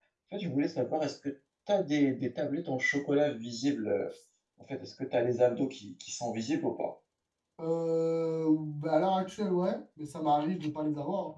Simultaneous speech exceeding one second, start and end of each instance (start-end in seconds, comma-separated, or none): none